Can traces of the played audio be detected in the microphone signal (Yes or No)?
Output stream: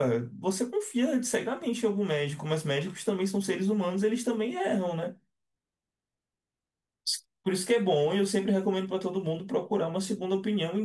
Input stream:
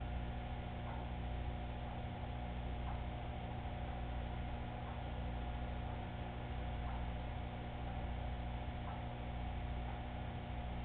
No